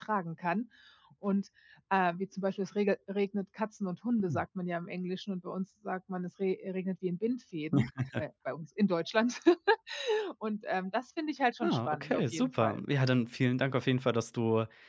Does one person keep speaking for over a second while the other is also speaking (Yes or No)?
Yes